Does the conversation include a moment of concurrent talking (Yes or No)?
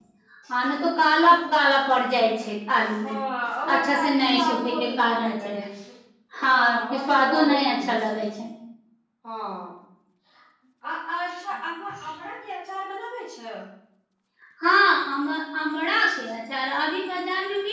Yes